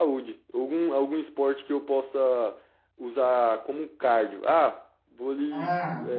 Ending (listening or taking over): listening